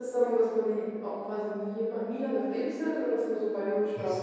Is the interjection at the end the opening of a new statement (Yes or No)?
Yes